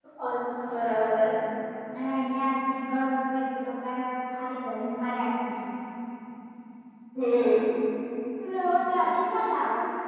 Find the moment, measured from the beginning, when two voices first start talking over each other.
none

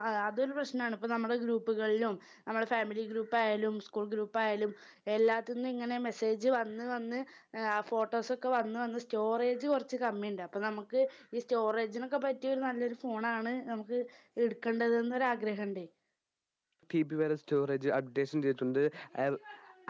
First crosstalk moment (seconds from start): none

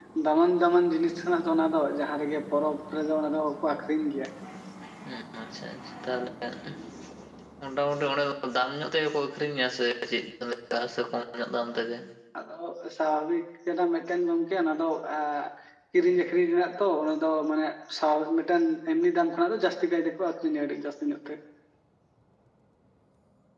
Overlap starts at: none

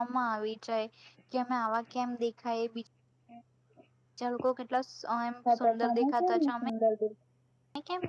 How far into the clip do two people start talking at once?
5.5 s

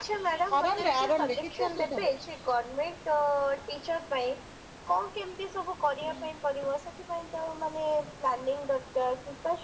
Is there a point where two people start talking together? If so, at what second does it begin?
0.6 s

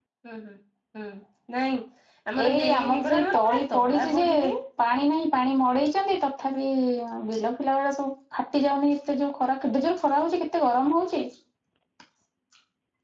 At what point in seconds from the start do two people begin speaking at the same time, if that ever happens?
2.5 s

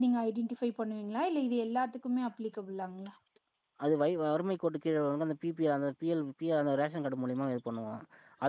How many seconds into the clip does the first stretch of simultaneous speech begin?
none

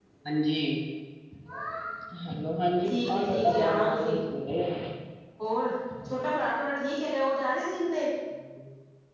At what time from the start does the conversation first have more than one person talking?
2.9 s

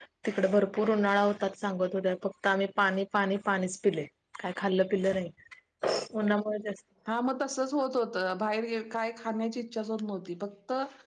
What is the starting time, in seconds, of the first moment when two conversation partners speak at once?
none

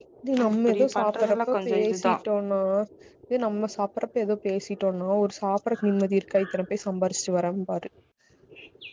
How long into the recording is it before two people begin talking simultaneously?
0.7 s

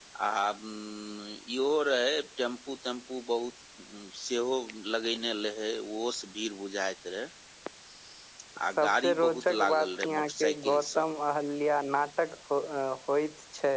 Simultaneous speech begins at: 8.8 s

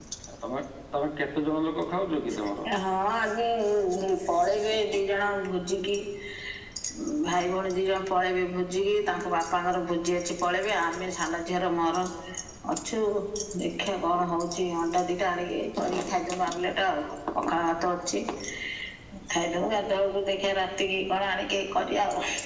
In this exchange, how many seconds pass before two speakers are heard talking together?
none

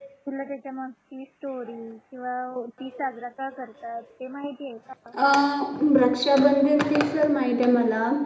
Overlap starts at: none

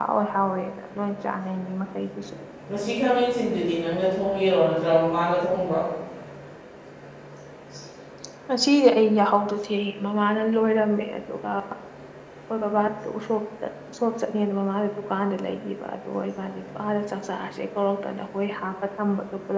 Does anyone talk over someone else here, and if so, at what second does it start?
none

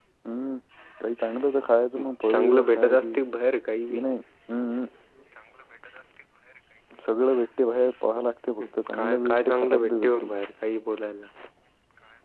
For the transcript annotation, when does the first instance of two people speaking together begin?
2.0 s

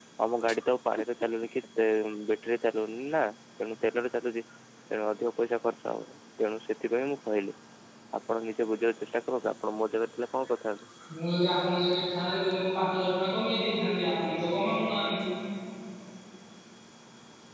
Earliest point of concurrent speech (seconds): none

